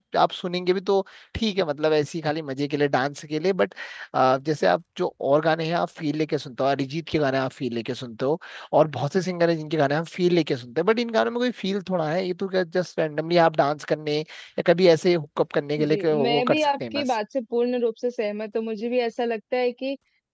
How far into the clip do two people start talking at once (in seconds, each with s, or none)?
15.8 s